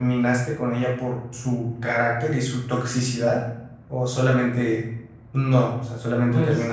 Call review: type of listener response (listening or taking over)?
taking over